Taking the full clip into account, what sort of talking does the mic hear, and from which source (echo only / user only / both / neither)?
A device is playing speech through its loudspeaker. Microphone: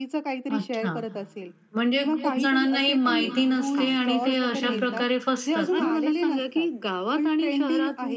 both